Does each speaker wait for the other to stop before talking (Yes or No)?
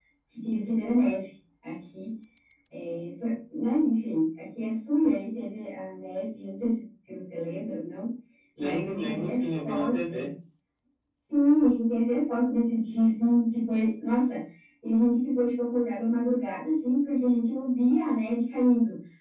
No